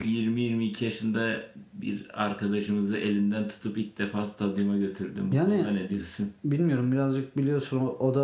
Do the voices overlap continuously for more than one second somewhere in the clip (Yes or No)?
No